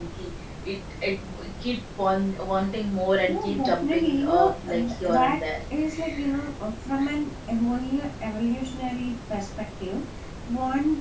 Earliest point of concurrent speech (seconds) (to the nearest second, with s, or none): 3 s